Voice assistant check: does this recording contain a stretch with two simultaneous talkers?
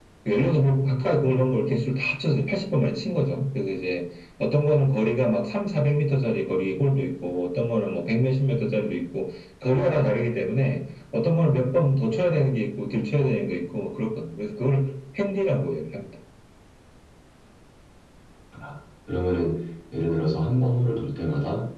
No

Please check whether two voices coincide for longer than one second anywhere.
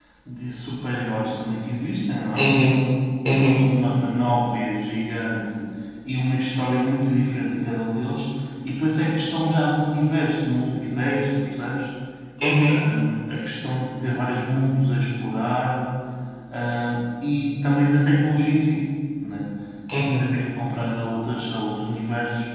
No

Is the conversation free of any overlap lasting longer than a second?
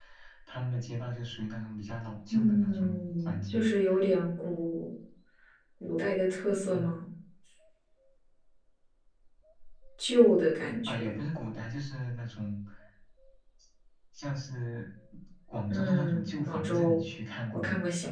No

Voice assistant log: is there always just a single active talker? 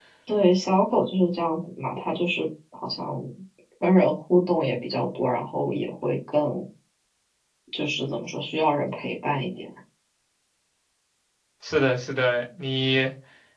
Yes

